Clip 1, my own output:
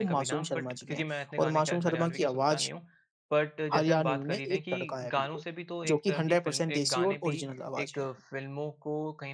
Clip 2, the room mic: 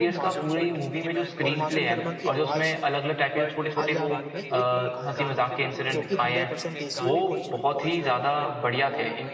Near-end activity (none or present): present